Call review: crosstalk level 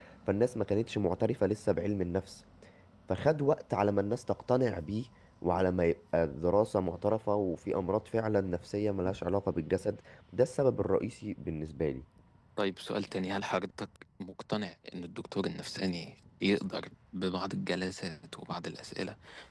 none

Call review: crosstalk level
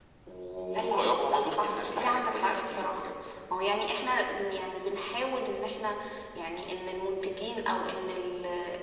present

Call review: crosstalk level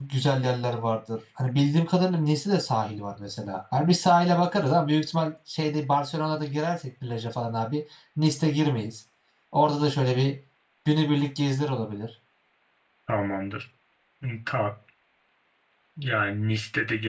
none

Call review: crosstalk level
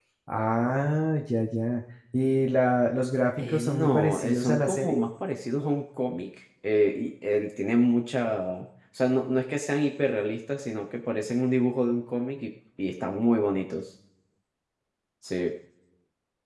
present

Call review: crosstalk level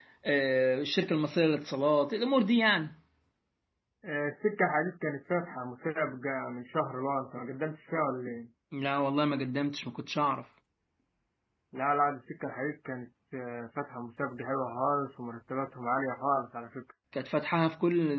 none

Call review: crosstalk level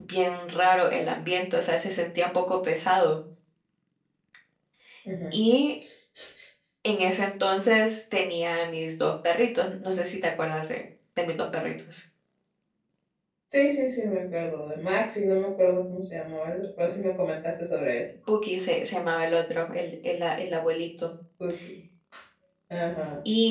none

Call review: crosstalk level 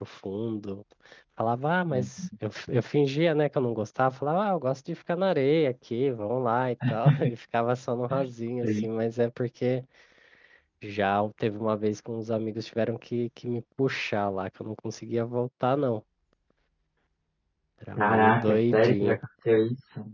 present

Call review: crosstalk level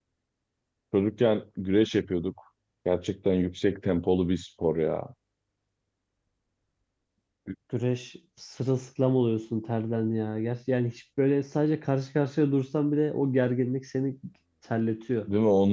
none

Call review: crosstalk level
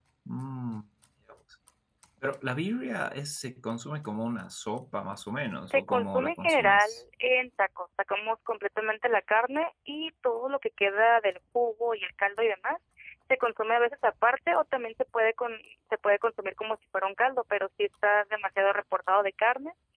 present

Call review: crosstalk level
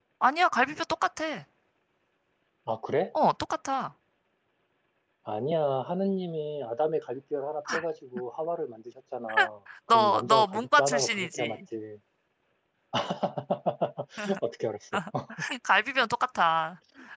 present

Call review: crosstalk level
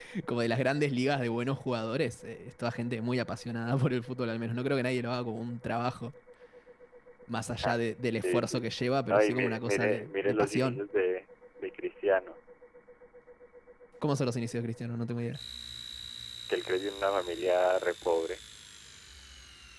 present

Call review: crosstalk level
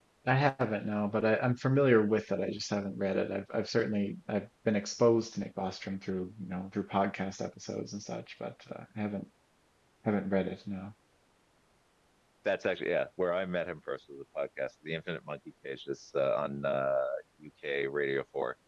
none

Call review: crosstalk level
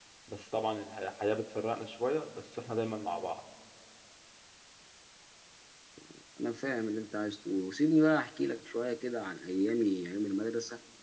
none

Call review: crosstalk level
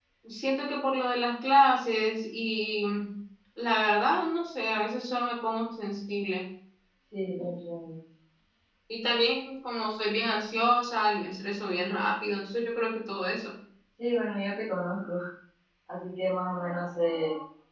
none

